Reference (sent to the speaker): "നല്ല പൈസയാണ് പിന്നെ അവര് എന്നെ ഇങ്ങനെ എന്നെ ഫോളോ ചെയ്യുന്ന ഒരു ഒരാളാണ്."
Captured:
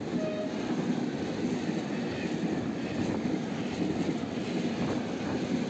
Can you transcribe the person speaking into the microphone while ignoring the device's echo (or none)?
none